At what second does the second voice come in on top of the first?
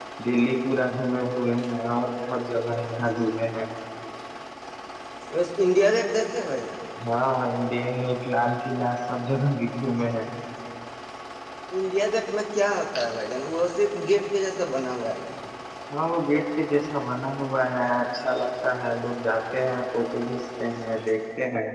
none

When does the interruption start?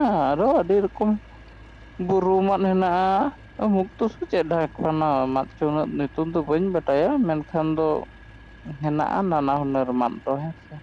none

